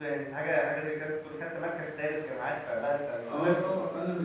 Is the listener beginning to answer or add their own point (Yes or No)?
Yes